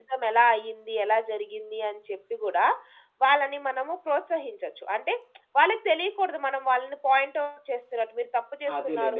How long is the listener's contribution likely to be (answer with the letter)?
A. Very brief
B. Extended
B